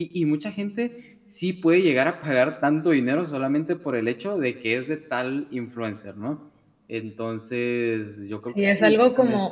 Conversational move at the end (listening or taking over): taking over